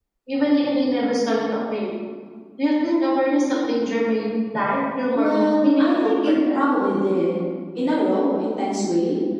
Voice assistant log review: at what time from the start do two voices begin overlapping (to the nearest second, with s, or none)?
5 s